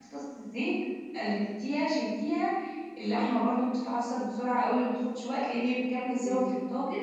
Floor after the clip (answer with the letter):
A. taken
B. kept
A